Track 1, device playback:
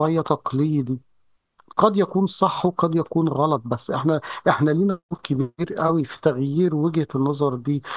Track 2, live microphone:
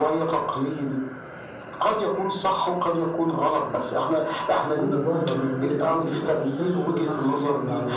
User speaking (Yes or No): Yes